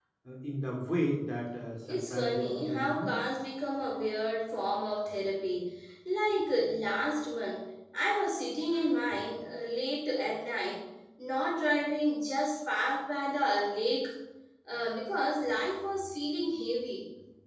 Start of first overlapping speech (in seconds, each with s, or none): 1.8 s